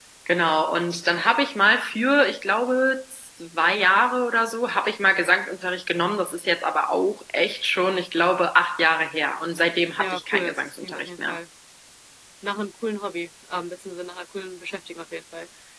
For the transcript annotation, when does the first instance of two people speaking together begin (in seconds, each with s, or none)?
10.0 s